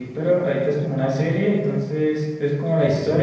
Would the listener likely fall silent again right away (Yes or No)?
Yes